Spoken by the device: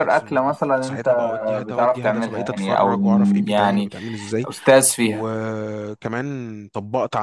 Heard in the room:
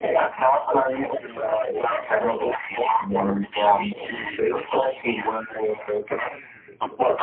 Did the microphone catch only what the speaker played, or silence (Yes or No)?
Yes